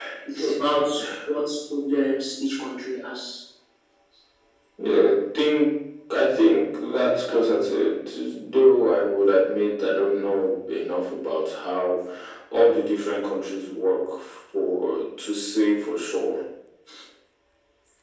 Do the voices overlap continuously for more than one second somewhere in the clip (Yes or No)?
No